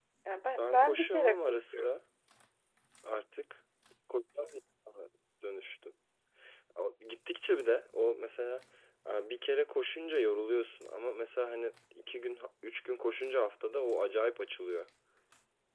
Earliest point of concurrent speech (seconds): 0.6 s

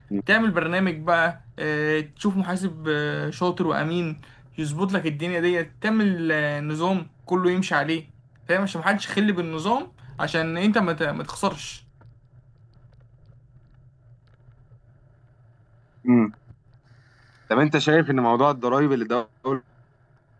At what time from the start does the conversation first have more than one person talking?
none

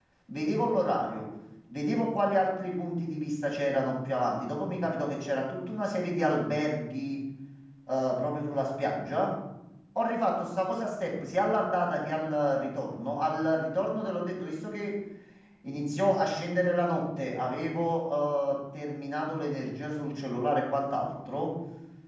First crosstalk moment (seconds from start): none

